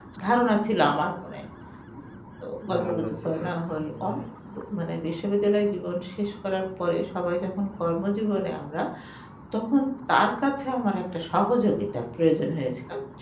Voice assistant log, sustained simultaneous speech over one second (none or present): present